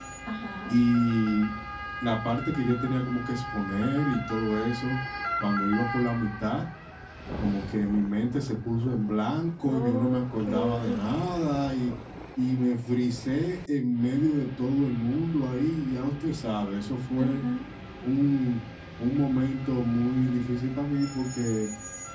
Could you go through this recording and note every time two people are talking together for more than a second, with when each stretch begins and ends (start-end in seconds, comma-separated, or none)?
9.7-11.0